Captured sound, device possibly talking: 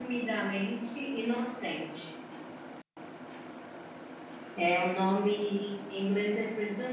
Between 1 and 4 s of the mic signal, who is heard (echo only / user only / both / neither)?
user only